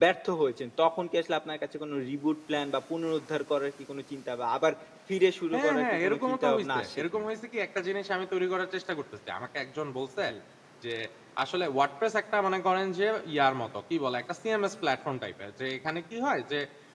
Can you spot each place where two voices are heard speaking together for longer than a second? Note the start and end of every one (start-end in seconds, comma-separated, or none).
5.5-7.3